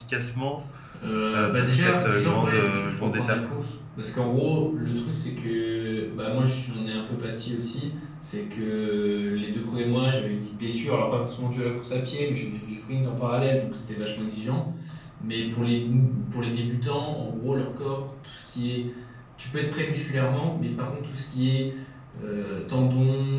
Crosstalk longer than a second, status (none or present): present